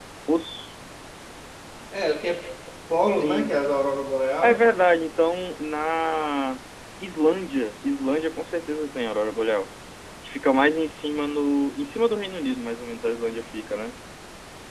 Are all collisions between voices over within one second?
Yes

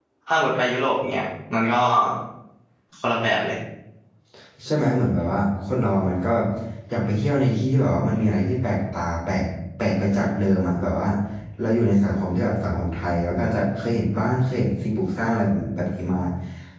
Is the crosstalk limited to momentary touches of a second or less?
Yes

